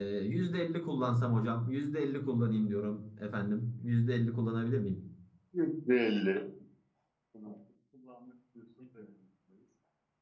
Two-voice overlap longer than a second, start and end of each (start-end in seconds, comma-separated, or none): none